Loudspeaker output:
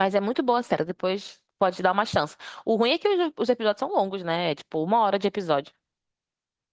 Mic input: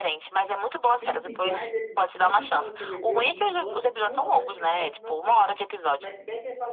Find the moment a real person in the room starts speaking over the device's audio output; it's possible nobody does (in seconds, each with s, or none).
1.0 s